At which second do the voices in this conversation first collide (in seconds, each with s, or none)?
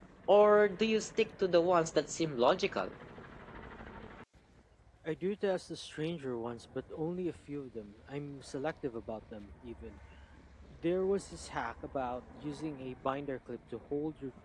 none